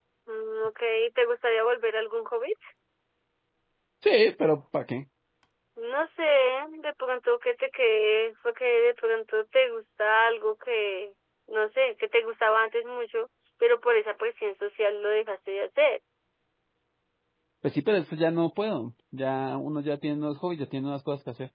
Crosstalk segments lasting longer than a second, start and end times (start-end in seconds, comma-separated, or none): none